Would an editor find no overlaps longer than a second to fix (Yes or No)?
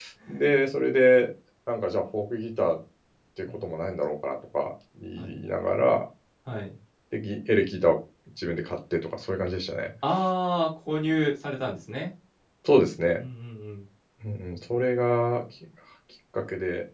Yes